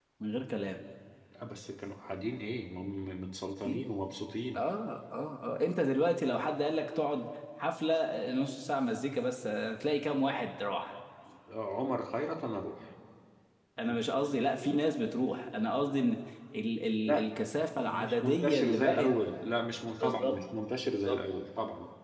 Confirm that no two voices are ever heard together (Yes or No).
No